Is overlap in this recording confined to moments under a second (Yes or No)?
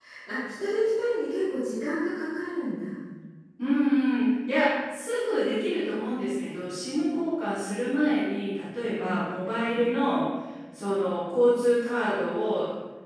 Yes